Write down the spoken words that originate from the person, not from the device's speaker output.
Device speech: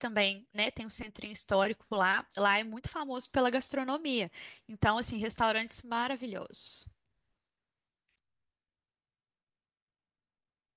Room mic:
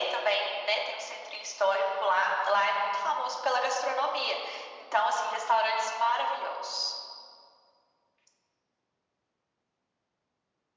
none

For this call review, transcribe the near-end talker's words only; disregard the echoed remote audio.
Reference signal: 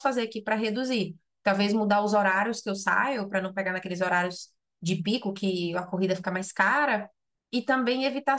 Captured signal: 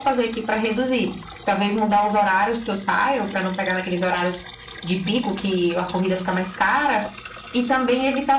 none

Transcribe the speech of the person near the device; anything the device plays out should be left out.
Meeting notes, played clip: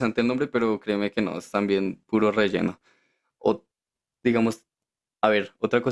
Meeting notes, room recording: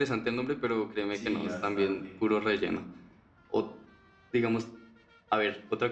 sí, bastante.

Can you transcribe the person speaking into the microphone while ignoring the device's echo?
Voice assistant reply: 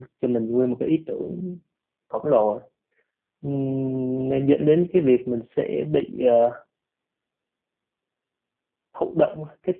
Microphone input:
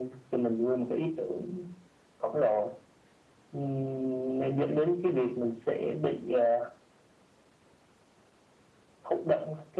none

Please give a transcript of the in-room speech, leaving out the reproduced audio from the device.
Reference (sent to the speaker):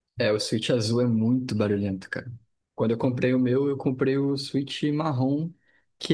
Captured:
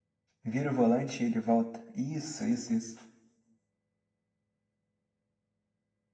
vira o volante e ele volta. Isso, isso, isso.

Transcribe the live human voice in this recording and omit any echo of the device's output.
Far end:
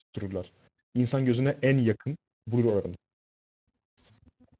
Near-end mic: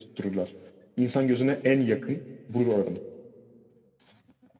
none

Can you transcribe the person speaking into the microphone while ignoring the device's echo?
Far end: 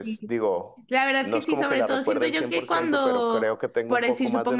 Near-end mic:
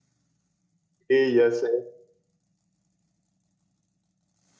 Y ya sé.

